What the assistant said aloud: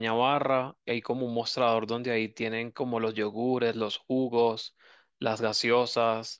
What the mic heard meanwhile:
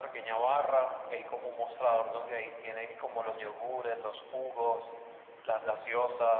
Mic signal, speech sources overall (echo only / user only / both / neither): echo only